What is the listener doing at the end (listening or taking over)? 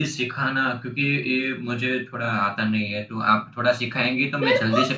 taking over